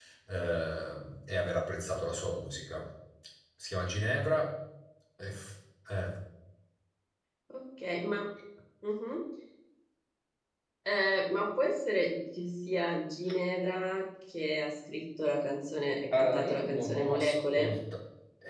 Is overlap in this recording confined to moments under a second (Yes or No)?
No